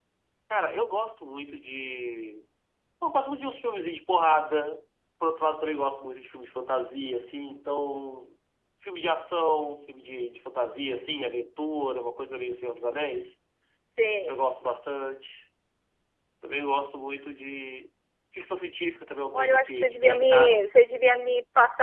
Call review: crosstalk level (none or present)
present